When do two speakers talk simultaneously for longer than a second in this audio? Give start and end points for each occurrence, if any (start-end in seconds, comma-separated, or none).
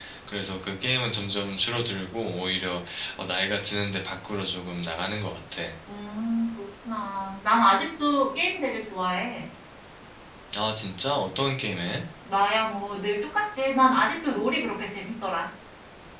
none